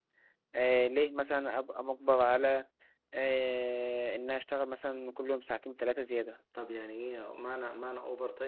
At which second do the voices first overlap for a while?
none

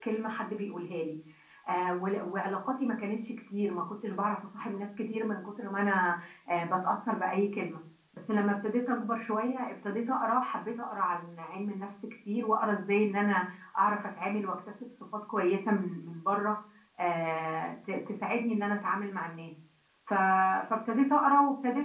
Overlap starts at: none

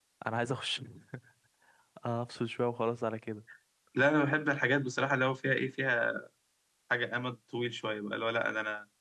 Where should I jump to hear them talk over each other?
none

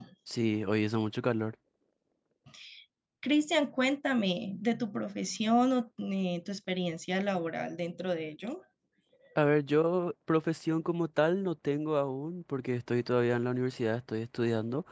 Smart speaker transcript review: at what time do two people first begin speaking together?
none

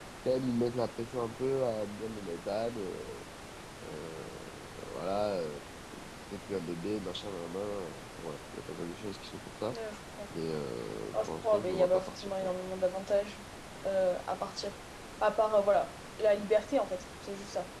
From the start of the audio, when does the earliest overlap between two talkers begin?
11.2 s

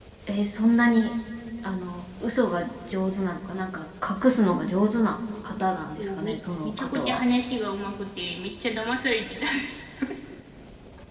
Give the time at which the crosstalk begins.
6.0 s

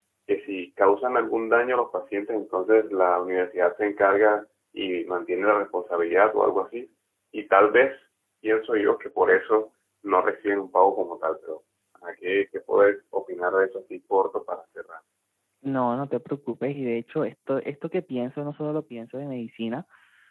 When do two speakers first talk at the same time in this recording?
none

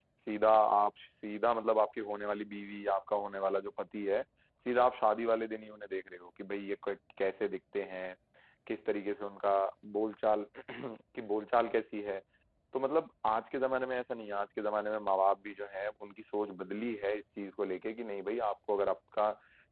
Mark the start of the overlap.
none

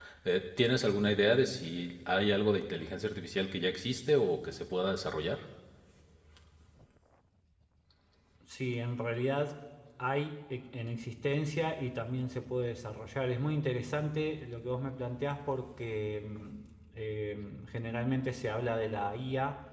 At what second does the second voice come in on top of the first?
none

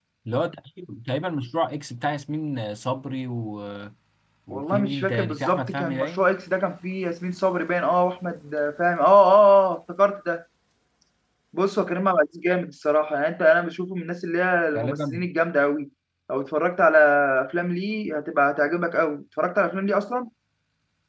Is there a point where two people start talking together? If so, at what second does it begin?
4.5 s

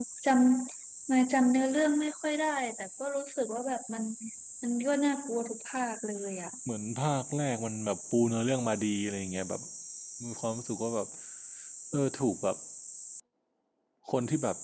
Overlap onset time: none

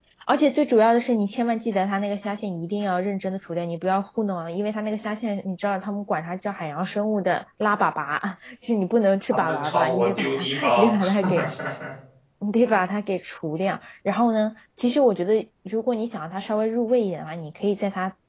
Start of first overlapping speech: 9.3 s

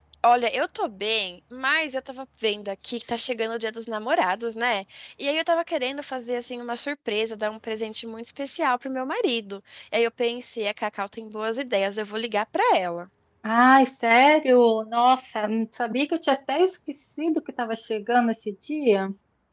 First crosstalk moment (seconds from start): none

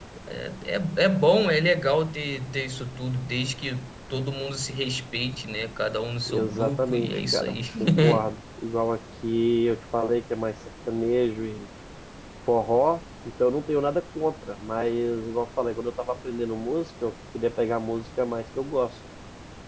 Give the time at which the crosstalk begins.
6.3 s

